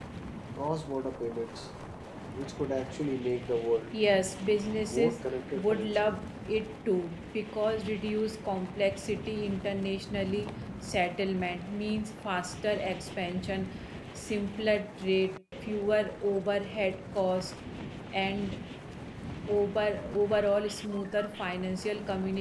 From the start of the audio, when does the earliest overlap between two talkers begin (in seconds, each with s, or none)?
4.8 s